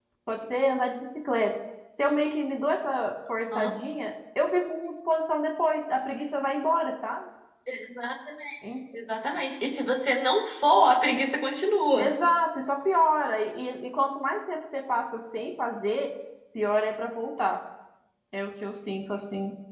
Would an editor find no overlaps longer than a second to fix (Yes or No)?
Yes